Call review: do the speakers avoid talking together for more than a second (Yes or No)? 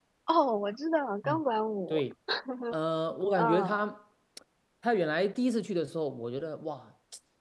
Yes